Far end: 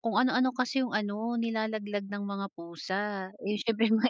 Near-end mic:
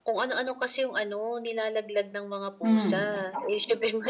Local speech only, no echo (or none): Hmm, exactly.